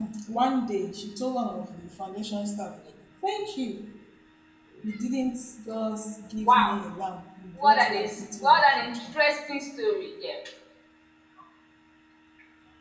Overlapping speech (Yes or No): Yes